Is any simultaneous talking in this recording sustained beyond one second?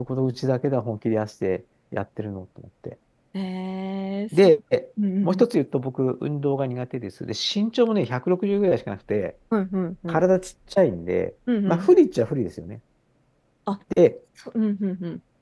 No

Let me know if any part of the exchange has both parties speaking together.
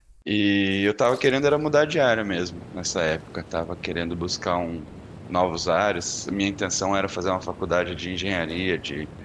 No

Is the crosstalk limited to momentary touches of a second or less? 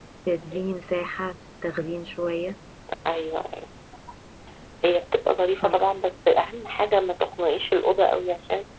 Yes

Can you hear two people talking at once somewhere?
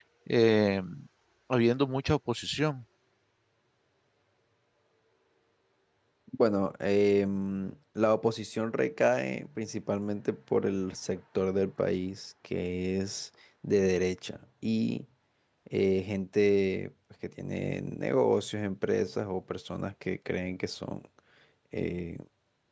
No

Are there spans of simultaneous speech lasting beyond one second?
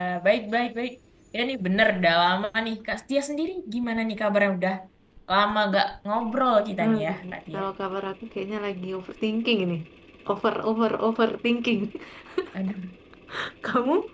No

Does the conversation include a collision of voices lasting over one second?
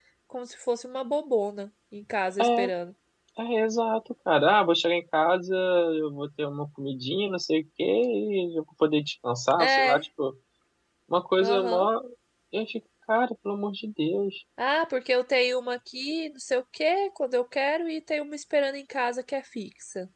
No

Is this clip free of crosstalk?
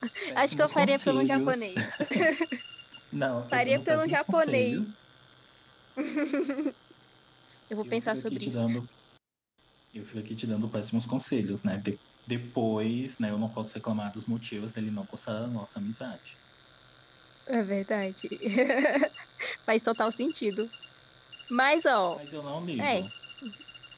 No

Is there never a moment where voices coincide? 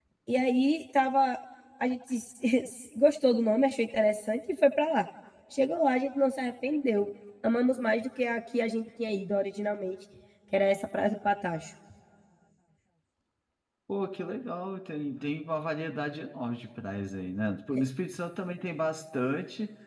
Yes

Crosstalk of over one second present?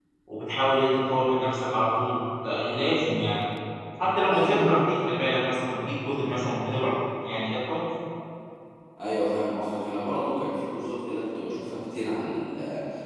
No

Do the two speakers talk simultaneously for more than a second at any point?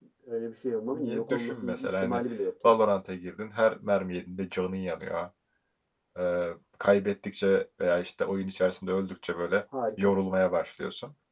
Yes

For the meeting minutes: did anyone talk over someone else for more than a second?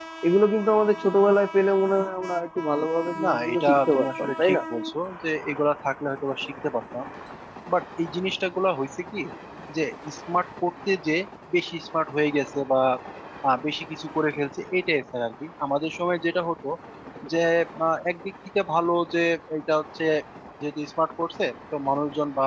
Yes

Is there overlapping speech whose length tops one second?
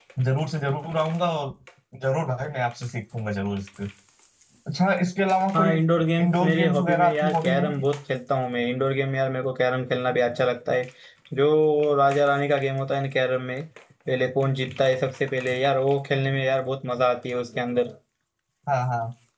Yes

